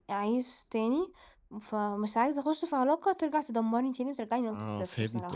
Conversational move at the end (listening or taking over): taking over